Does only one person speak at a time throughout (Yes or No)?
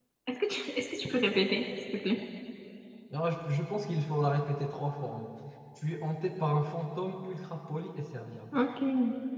Yes